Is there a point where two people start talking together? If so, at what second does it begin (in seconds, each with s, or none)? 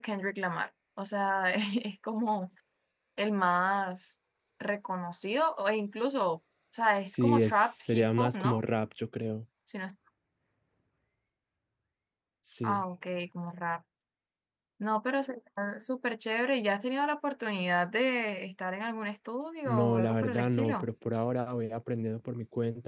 7.1 s